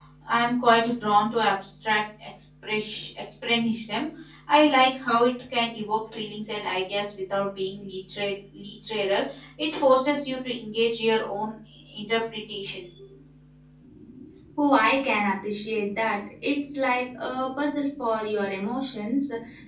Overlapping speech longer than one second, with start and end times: none

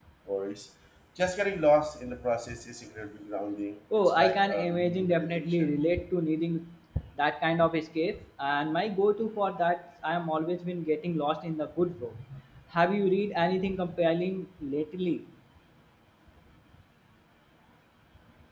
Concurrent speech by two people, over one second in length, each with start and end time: 4.0-5.7

